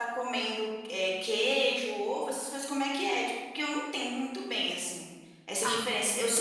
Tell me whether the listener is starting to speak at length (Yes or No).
No